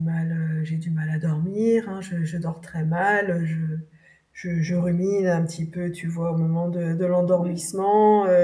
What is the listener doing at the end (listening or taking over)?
listening